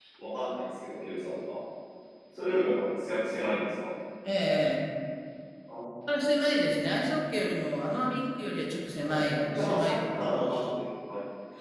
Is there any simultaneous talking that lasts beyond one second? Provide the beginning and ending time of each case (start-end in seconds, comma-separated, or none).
9.0-10.6